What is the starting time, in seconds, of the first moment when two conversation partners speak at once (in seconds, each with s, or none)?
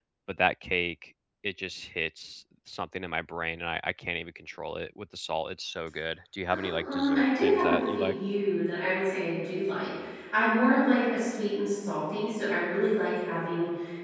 6.5 s